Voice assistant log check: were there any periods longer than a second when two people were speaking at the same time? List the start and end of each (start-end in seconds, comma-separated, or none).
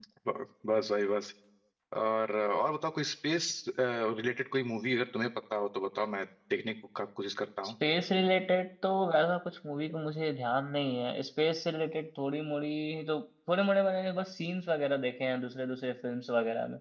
none